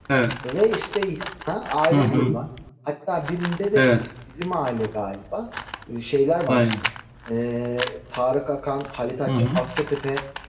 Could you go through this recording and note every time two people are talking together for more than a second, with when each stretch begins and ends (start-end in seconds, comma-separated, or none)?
none